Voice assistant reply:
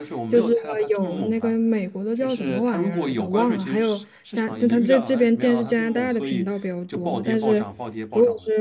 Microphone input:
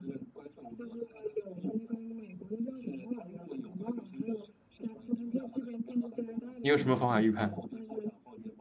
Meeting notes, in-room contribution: present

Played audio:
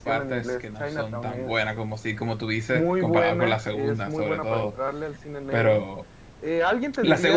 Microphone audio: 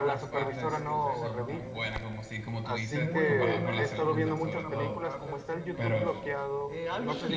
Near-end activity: present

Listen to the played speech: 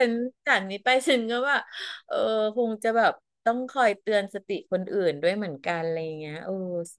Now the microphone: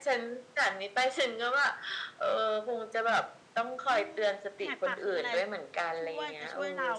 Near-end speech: present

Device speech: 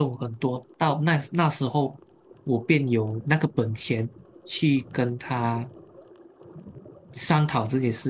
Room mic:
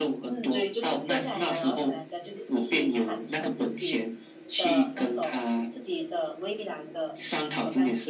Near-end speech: present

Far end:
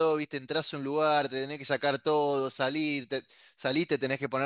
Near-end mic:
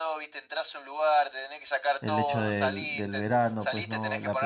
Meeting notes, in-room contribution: present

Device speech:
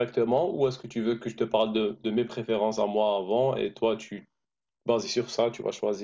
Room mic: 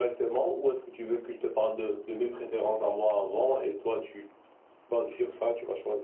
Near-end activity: none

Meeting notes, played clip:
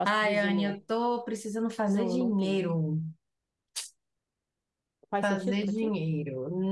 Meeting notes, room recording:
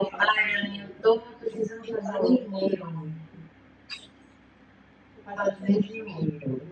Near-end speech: none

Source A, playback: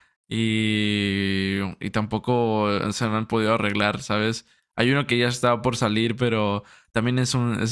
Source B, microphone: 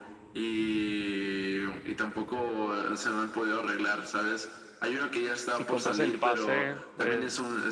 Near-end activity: present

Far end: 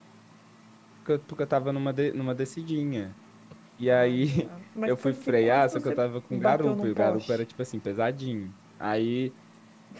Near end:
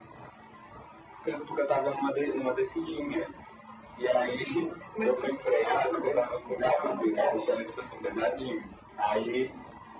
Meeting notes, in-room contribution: none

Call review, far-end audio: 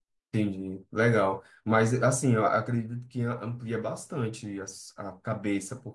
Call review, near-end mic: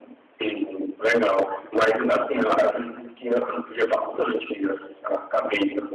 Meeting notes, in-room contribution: none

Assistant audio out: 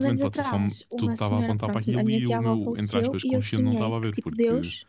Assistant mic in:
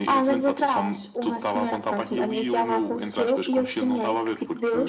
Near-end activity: none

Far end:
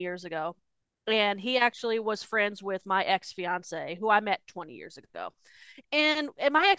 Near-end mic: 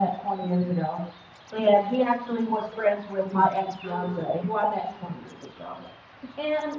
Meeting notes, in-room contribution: present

